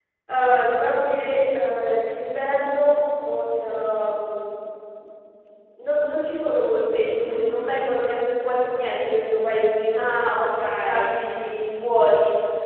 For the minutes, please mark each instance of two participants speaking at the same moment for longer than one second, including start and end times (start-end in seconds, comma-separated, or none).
9.9-11.2